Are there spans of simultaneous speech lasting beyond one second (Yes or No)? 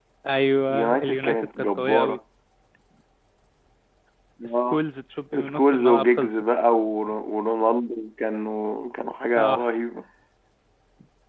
Yes